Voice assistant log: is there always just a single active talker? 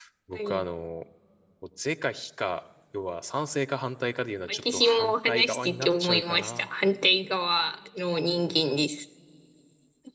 No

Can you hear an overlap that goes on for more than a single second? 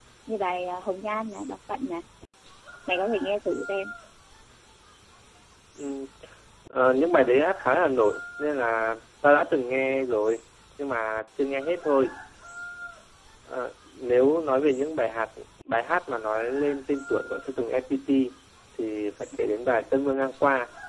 No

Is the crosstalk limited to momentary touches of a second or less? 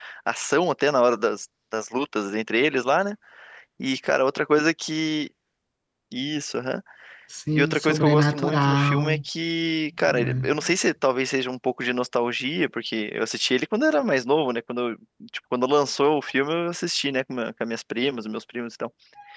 No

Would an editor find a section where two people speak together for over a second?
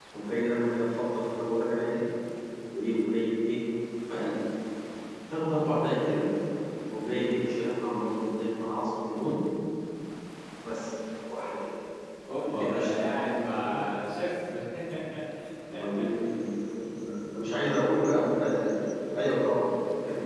Yes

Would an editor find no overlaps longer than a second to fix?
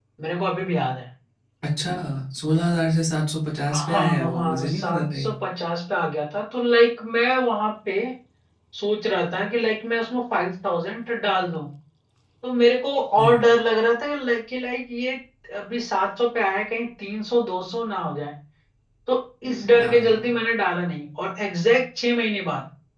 No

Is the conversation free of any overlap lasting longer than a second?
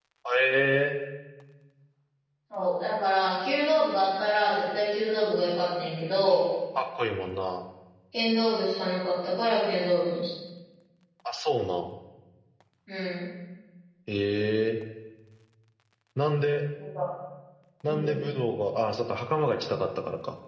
Yes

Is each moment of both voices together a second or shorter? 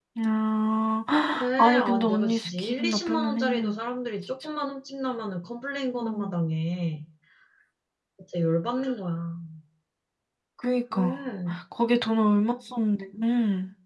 No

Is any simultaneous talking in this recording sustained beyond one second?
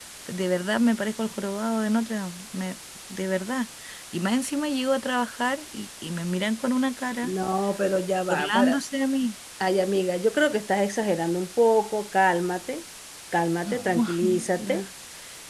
Yes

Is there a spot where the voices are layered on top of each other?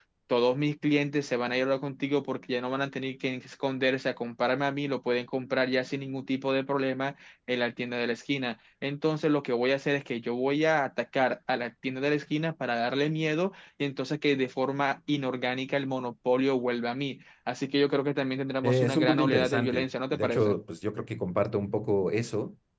Yes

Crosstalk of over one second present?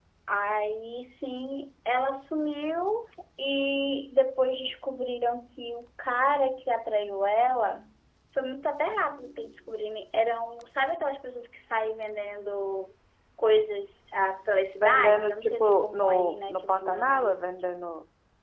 Yes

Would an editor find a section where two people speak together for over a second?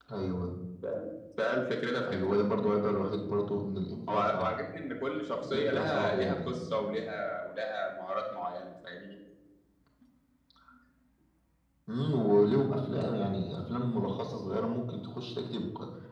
Yes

